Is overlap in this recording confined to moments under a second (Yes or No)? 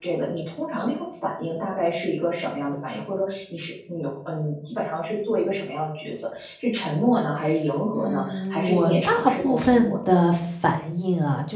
No